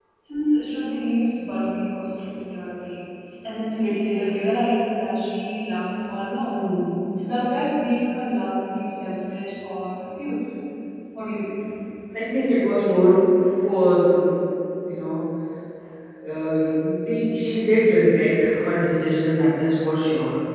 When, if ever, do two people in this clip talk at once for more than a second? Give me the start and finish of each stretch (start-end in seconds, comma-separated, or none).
none